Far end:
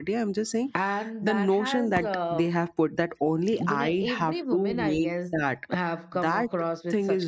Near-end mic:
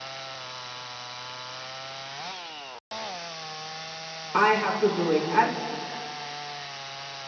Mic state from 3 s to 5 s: user only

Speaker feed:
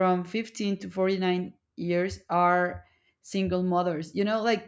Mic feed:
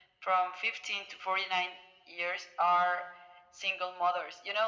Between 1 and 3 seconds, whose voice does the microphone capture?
echo only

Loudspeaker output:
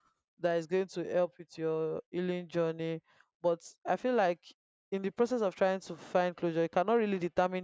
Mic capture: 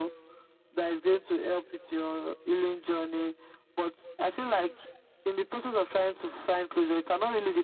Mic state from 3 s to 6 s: echo only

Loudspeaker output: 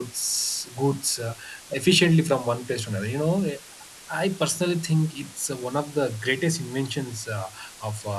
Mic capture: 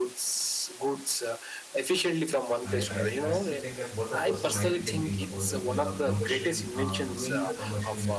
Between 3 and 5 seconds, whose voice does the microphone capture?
both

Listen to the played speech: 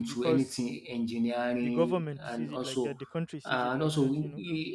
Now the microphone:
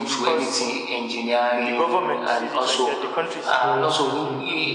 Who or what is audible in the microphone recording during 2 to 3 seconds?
echo only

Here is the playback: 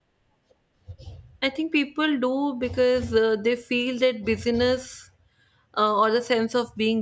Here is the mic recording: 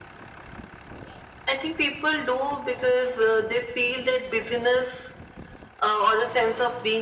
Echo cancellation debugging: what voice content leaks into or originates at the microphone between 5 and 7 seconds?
echo only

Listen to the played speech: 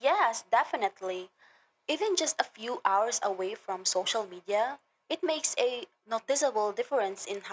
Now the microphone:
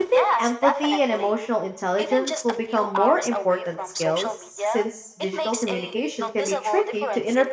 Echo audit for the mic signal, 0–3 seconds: both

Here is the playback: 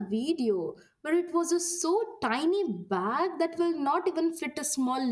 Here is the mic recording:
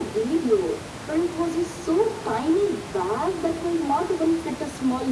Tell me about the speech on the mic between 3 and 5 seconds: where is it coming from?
echo only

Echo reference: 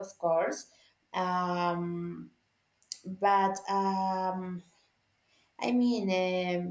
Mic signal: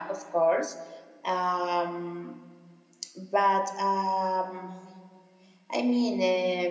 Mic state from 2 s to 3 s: echo only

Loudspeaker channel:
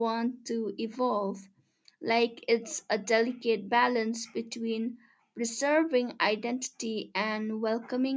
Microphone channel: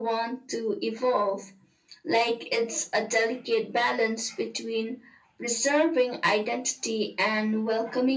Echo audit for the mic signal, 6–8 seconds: echo only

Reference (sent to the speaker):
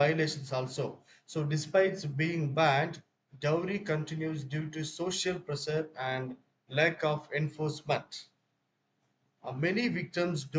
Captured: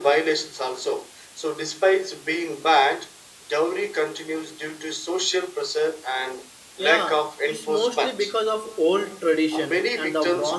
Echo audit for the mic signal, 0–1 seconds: echo only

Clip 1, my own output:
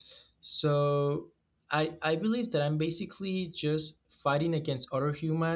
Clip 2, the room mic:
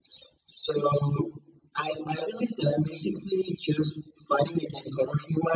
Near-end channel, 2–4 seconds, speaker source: echo only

